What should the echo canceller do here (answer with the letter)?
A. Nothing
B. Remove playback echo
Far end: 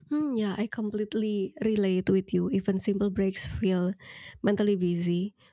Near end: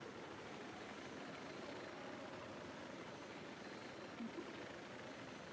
A